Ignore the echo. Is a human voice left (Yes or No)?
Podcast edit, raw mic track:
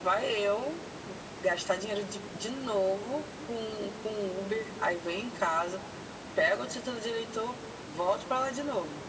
No